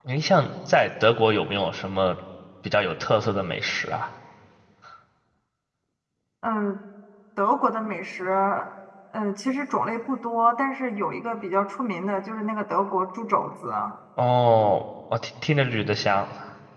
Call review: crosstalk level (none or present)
none